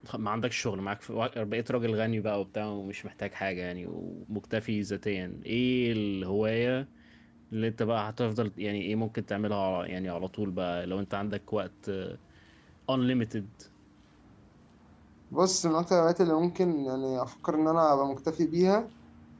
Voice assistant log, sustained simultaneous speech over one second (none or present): none